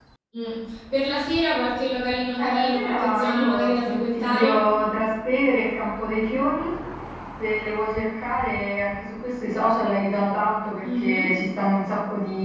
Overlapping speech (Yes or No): Yes